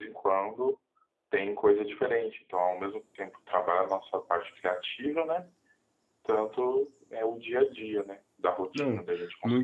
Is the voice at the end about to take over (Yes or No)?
Yes